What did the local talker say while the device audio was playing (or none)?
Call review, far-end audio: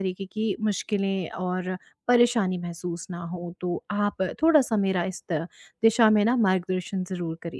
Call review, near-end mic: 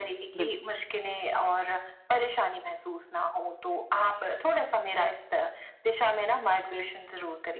बिल्कुल,